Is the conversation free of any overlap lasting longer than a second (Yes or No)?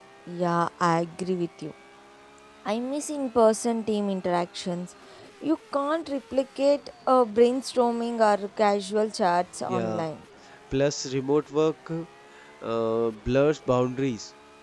Yes